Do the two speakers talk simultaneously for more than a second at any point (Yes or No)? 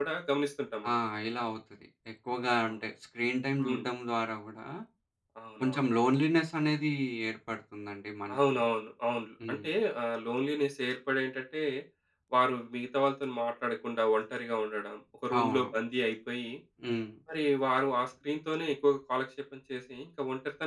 No